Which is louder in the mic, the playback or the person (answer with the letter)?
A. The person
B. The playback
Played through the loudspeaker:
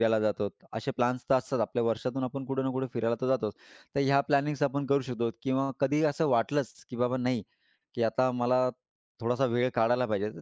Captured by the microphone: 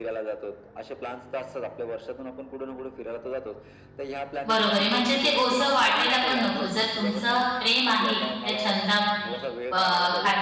A